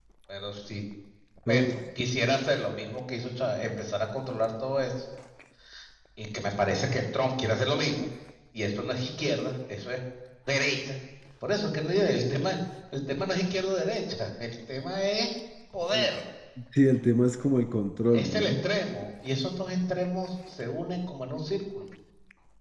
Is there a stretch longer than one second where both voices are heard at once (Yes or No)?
No